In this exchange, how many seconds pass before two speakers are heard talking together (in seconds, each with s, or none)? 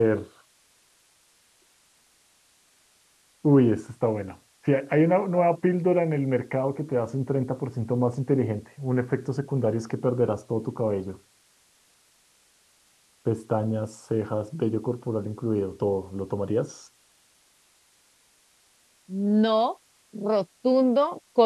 none